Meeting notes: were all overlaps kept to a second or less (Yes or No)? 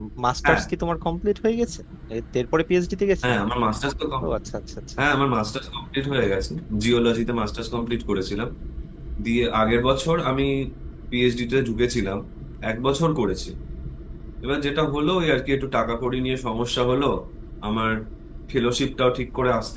Yes